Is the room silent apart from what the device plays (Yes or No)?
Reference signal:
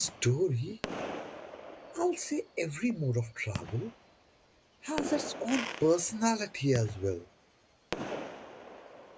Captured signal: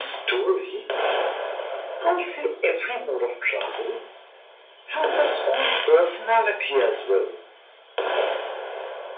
Yes